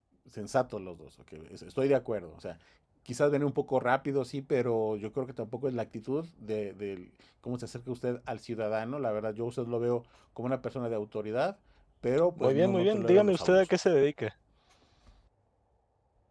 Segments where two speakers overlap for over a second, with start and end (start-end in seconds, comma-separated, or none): 12.4-13.7